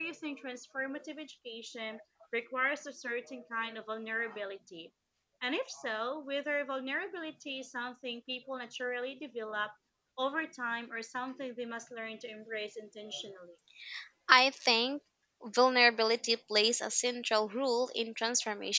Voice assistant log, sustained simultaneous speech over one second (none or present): none